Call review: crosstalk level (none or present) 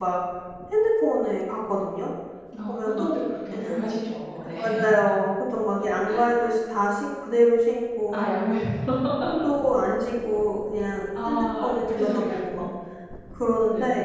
present